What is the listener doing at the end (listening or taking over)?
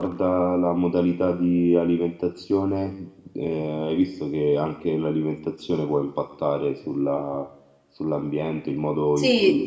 listening